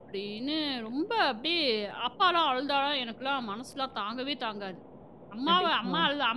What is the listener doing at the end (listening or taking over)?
listening